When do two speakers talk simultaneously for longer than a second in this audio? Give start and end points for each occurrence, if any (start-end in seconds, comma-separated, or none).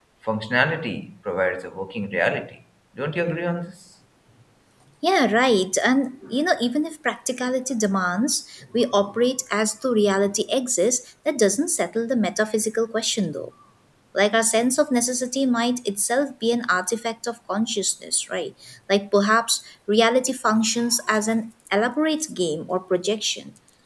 none